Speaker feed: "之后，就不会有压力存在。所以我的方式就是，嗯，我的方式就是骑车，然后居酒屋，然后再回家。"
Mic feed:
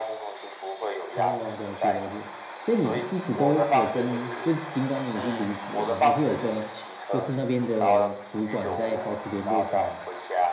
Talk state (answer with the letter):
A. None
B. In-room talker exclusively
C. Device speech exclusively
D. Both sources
D